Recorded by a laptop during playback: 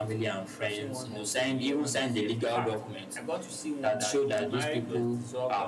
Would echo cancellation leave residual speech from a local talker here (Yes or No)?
Yes